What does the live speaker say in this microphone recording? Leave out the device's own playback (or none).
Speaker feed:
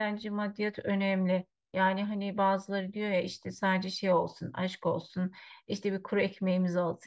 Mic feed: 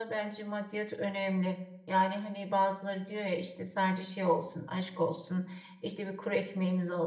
none